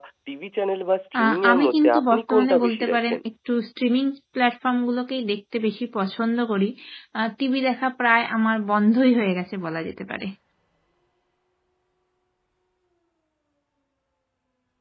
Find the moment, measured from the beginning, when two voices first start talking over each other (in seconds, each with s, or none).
1.2 s